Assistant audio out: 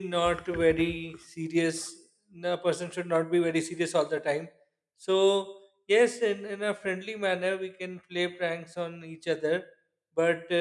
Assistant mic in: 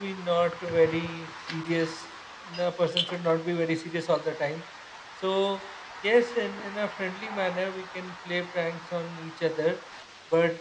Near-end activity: none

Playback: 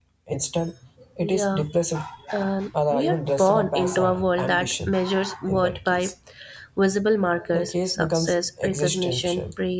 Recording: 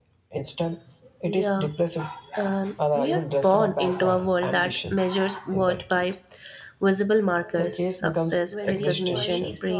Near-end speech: present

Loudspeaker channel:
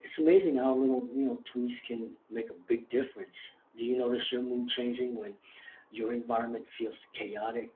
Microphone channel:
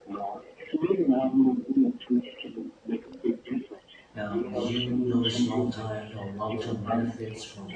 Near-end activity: present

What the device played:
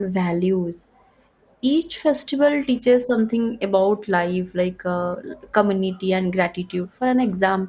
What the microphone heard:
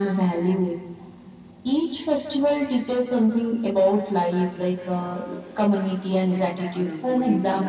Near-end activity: present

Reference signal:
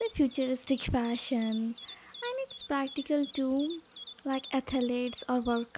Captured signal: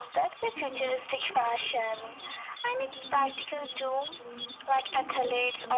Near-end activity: present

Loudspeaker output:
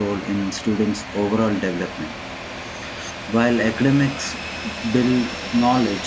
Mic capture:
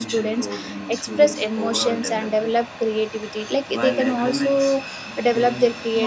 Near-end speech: present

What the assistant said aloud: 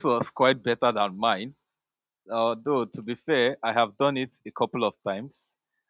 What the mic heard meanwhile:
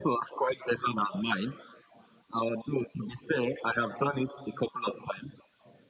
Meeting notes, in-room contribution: none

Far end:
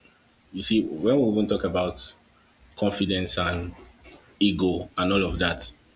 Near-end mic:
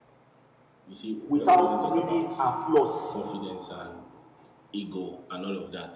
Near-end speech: present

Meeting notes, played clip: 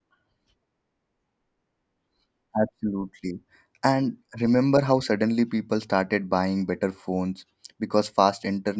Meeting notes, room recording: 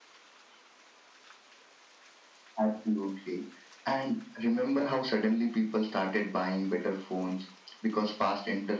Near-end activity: none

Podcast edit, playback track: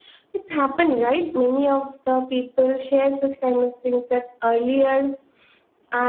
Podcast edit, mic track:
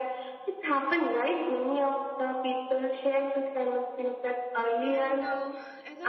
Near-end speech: present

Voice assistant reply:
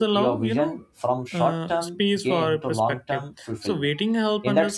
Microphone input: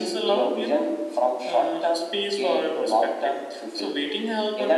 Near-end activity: none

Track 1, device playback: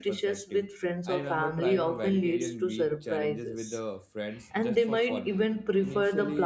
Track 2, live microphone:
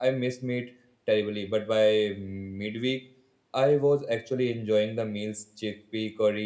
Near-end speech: present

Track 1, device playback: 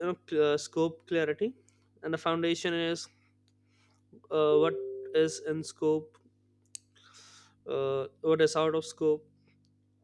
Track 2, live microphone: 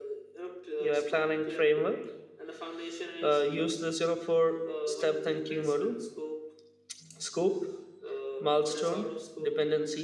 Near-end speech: present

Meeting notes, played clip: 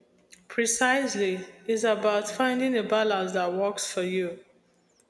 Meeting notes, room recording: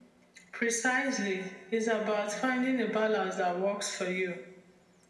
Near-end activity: none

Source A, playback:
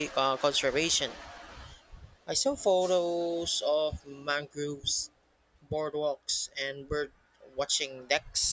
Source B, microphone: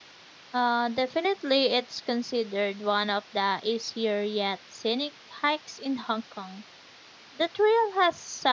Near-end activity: present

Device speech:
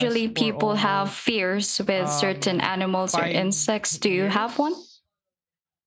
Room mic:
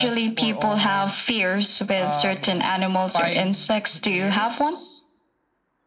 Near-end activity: none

